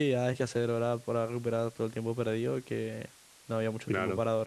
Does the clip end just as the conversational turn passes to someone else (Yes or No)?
No